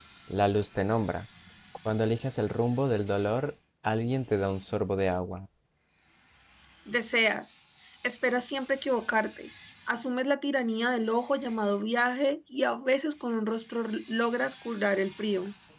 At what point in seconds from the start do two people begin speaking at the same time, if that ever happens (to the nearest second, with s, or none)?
none